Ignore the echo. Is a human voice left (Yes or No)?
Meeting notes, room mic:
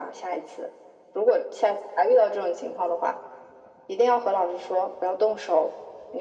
No